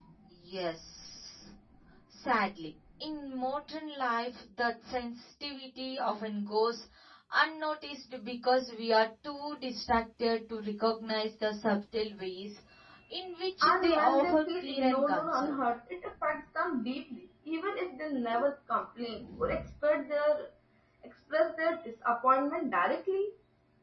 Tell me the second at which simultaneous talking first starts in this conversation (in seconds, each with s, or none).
13.6 s